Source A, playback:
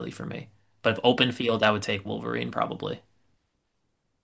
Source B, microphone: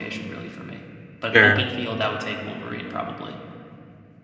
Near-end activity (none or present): present